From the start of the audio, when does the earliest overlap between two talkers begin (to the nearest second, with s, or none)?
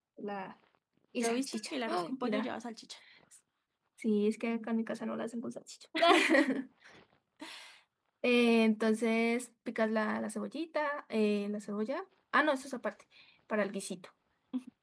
1 s